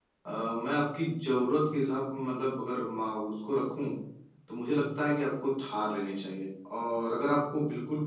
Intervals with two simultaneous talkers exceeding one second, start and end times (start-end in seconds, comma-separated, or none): none